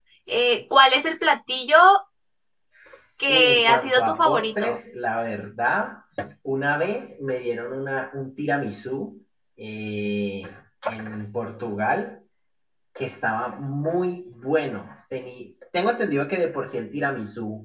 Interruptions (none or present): present